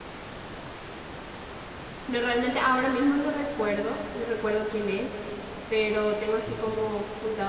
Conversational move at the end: listening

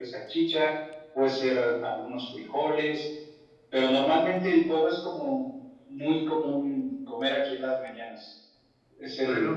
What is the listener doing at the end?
listening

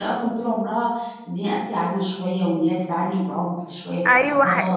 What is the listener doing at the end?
taking over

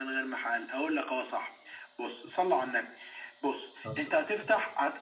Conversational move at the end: listening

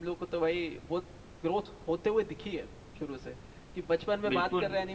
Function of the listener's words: listening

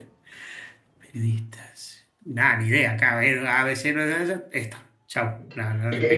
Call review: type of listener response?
taking over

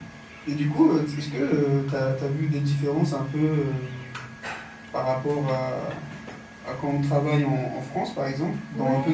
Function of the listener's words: taking over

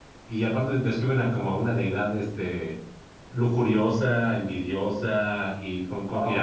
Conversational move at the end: taking over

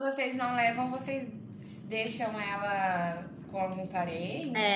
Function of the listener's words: taking over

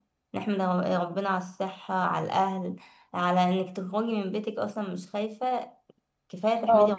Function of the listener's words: taking over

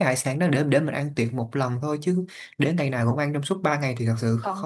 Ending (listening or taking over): taking over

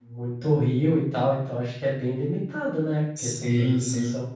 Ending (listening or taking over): taking over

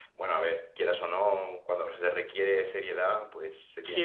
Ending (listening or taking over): taking over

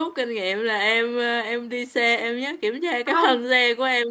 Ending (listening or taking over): listening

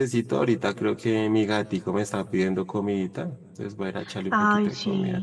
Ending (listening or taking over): taking over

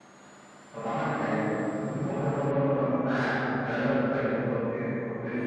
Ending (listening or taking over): listening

